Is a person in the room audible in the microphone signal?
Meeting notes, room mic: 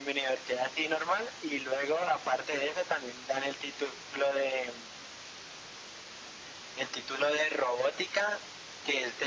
No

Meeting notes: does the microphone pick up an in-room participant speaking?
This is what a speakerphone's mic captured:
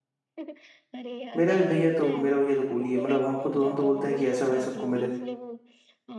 Yes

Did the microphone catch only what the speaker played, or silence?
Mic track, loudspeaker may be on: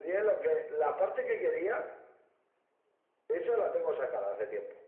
Yes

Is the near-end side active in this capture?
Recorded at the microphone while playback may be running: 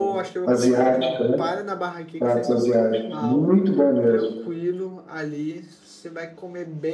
Yes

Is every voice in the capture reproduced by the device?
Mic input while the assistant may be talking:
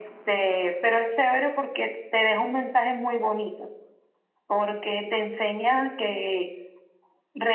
Yes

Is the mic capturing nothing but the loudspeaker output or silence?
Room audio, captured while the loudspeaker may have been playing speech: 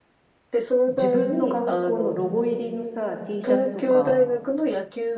No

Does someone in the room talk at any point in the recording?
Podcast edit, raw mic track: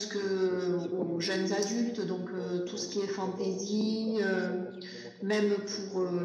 Yes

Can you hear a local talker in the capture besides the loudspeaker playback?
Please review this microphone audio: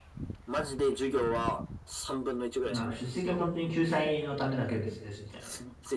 Yes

